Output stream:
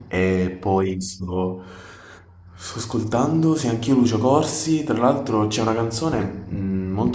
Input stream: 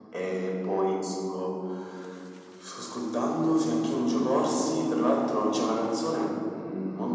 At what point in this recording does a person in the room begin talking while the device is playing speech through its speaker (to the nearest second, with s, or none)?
none